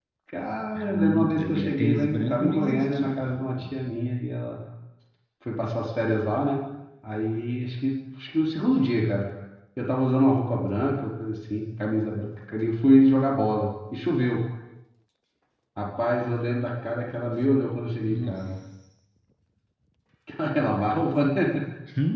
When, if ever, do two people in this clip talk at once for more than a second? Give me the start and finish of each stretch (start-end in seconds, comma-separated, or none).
0.8-3.9